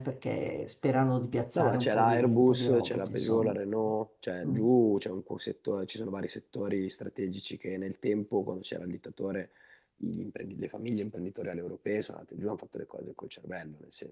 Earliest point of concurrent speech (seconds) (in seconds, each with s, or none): 1.6 s